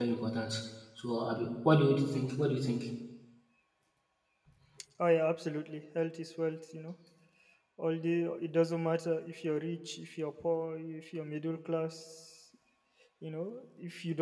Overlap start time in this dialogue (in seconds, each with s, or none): none